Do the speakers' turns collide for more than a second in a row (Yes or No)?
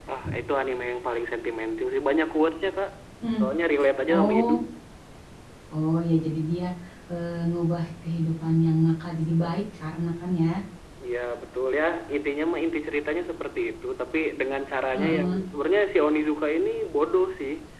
No